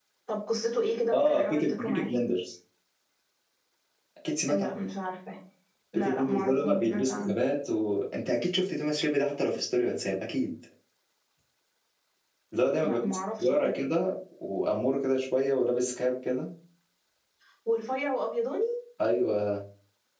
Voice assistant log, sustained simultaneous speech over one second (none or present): present